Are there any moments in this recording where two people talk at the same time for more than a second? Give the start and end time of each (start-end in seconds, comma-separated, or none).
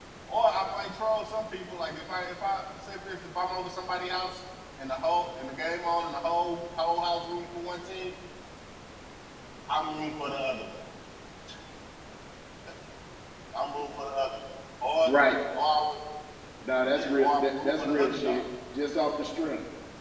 17.0-18.4